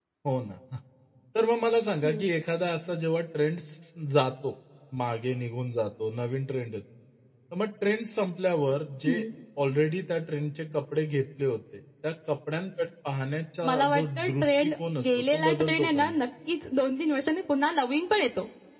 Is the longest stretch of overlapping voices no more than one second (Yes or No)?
No